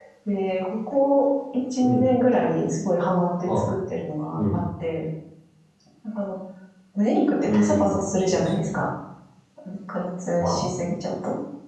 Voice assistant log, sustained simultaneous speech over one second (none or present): present